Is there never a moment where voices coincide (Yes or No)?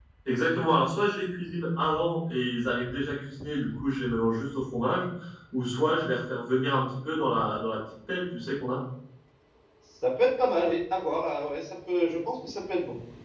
Yes